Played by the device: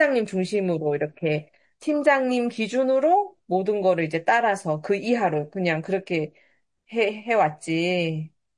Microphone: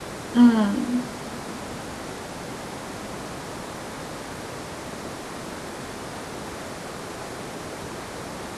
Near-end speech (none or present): present